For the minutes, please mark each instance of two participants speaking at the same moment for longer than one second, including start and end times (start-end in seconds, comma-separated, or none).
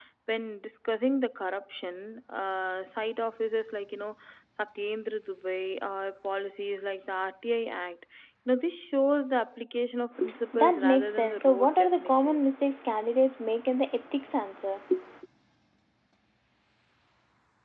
10.5-12.5